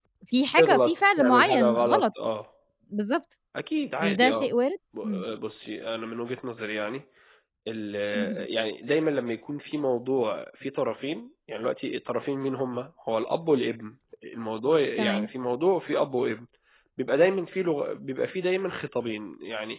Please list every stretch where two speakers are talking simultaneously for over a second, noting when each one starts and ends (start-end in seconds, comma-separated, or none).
0.6-2.1